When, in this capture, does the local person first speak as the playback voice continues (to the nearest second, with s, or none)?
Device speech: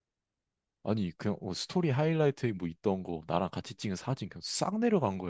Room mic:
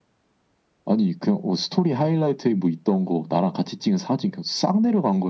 none